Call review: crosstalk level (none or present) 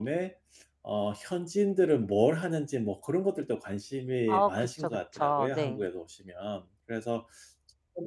present